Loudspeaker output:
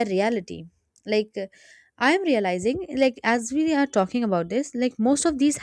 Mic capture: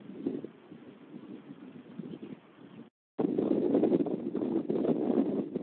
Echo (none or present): none